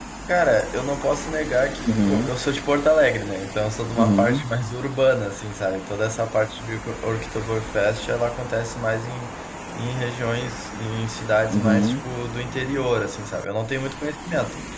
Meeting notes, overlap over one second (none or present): none